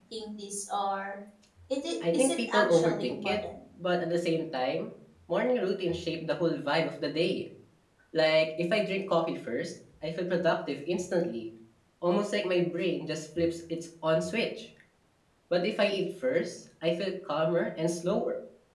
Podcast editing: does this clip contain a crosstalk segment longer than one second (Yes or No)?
Yes